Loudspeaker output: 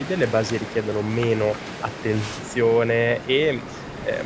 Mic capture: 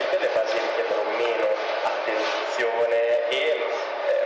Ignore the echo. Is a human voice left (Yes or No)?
No